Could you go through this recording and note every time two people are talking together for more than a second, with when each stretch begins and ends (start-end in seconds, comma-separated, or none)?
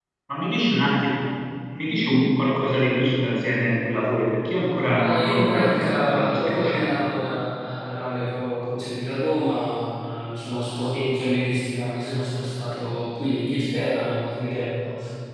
4.9-7.0